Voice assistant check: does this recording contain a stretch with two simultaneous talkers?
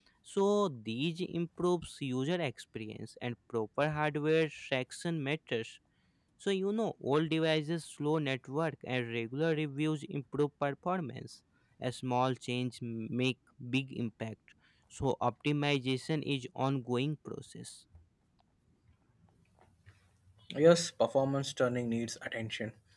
No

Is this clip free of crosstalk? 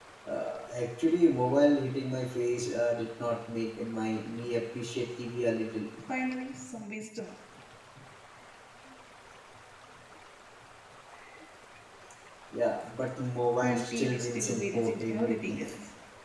No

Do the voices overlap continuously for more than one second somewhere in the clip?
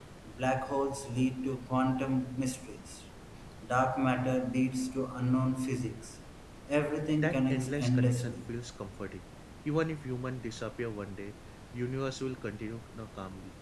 Yes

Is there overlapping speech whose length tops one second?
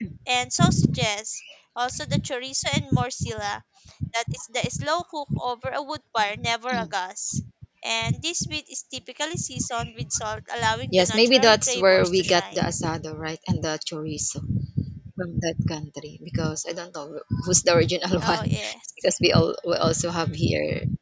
Yes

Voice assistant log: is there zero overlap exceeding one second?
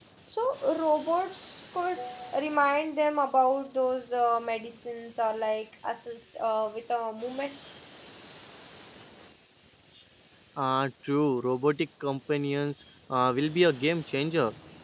Yes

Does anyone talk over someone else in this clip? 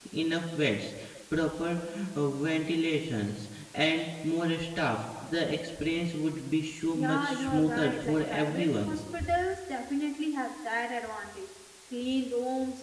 Yes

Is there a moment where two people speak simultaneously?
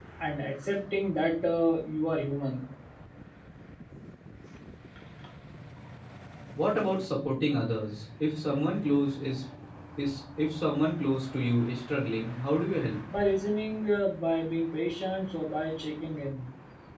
No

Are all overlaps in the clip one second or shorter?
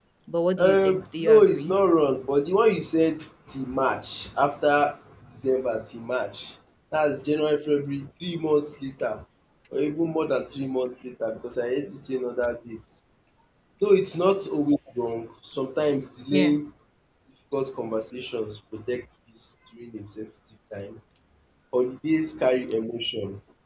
No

